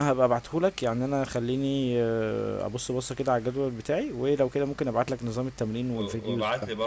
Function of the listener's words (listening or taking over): taking over